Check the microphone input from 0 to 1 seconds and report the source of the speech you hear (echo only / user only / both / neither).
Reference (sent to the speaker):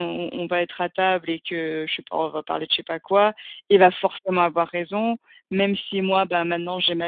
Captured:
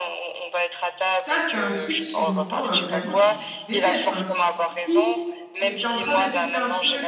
echo only